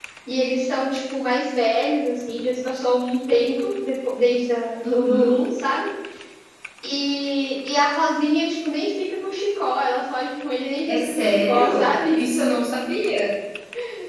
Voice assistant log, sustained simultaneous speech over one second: present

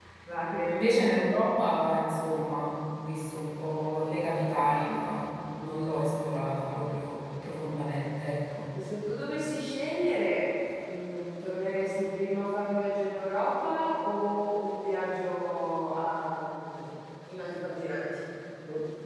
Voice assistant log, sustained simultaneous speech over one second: none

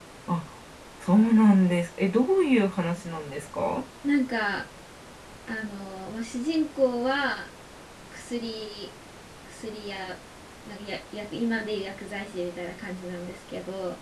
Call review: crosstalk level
none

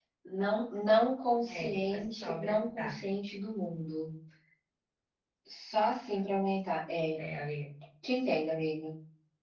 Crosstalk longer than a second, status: present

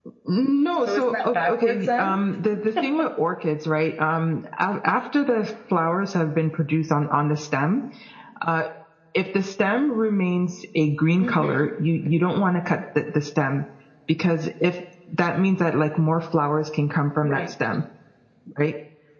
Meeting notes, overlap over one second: present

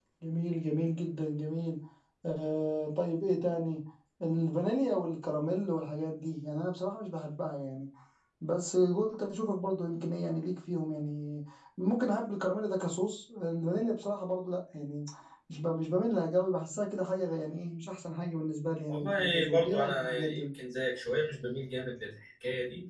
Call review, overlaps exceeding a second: present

